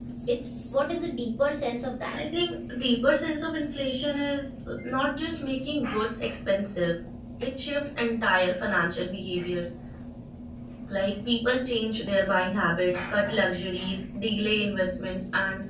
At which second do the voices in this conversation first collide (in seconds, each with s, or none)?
none